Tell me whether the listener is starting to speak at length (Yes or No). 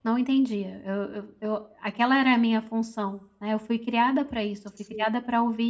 No